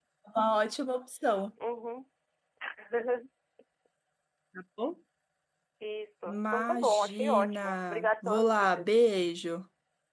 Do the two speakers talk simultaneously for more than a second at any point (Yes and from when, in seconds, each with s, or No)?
Yes, from 6.3 s